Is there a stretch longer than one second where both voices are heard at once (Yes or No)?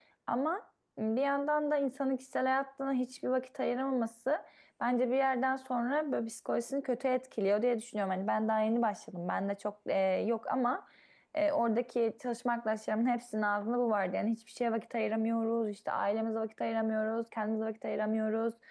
No